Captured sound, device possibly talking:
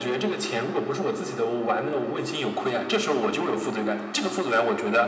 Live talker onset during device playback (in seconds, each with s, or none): none